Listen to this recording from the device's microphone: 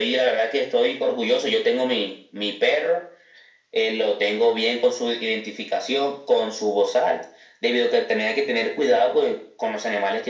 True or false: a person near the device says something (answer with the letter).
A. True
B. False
B